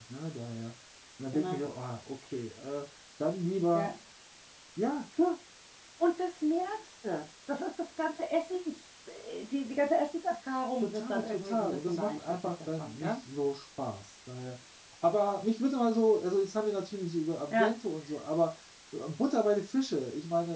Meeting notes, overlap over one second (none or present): present